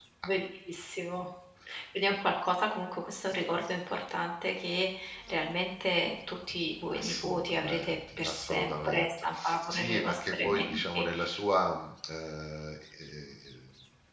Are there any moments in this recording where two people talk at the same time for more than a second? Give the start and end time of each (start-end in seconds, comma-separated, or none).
6.9-11.1